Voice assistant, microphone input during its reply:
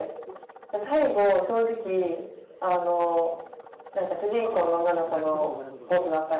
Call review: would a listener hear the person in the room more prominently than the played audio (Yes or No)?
No